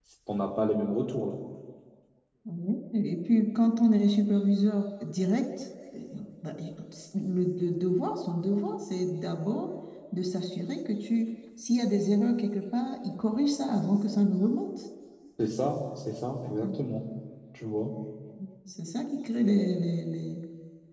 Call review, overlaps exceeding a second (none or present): none